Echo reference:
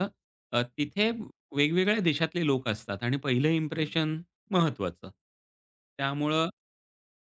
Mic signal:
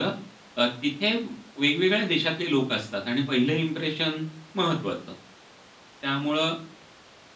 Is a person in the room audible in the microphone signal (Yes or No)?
No